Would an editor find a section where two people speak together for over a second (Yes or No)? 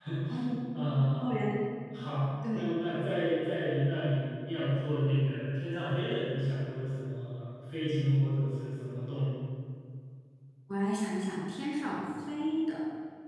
No